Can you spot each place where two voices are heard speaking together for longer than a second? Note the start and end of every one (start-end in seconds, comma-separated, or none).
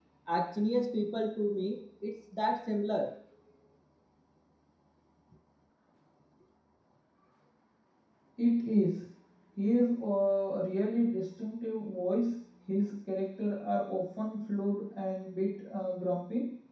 none